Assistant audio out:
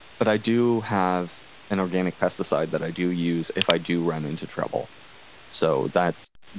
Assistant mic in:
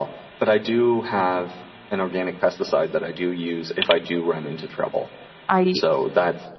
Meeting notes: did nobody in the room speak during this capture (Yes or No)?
No